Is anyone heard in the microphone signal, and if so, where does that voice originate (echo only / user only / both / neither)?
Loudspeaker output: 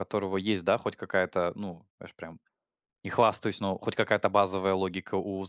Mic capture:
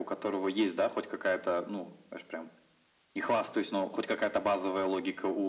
echo only